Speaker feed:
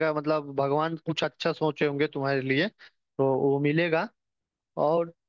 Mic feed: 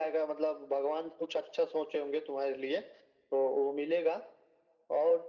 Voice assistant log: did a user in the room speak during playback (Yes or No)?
No